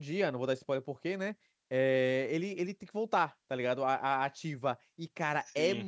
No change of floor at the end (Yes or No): Yes